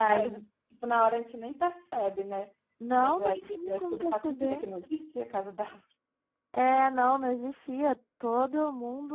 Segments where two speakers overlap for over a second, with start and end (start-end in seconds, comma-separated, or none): 3.0-4.6